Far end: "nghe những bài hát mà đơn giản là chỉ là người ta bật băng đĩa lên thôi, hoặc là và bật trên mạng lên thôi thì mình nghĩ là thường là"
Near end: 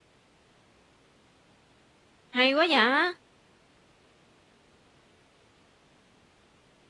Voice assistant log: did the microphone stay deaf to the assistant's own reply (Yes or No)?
Yes